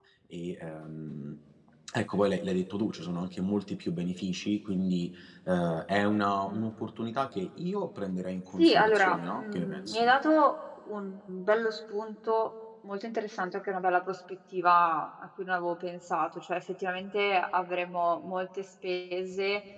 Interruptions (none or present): present